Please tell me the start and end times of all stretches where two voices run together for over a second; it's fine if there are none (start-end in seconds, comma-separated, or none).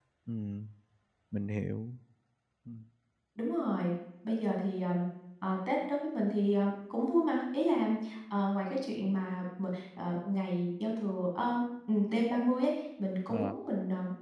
none